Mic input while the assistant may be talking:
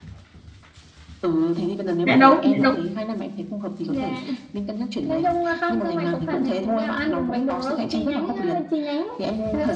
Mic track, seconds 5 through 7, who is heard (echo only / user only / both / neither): echo only